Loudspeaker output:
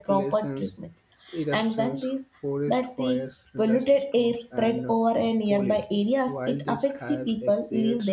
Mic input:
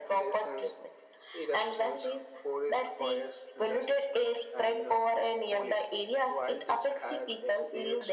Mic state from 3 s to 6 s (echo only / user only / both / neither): echo only